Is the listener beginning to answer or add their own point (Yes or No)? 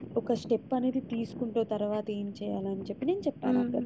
Yes